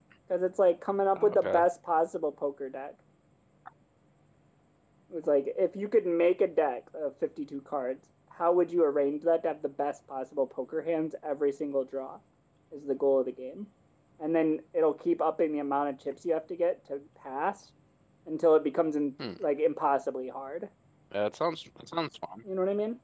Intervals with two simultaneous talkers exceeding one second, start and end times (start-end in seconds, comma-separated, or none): none